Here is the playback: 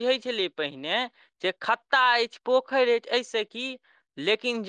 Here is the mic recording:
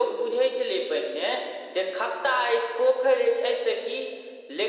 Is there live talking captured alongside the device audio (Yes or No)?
No